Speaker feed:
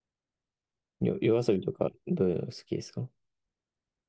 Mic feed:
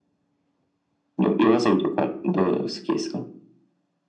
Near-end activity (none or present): none